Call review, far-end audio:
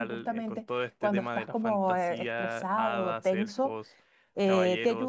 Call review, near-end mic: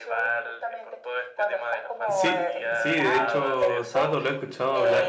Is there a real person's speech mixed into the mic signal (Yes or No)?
Yes